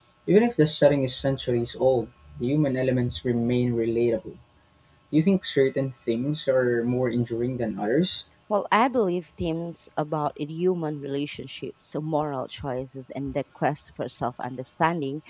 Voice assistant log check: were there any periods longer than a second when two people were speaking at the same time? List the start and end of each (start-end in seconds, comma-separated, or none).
none